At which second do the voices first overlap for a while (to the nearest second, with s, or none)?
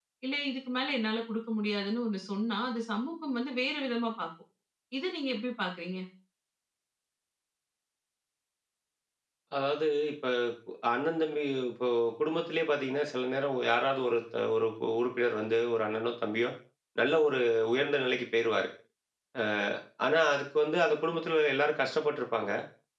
none